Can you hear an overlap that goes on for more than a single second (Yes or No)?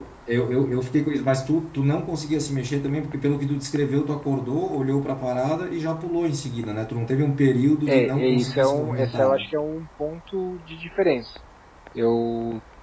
Yes